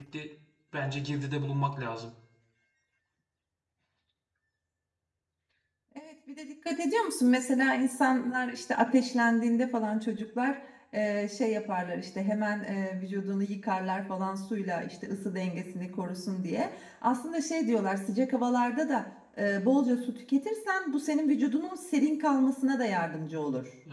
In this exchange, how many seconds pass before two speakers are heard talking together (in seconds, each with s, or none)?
none